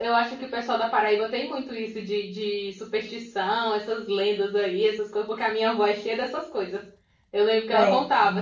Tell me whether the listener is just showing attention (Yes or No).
Yes